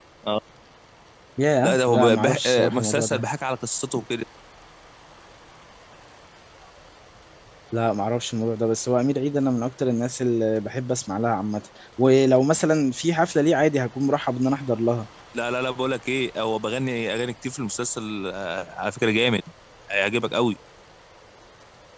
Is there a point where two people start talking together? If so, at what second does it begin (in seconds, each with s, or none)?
1.6 s